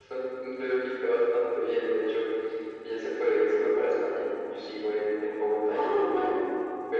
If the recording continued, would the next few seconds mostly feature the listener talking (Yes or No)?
No